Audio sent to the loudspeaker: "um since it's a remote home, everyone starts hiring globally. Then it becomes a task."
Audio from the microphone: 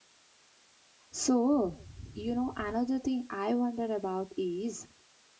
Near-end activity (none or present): present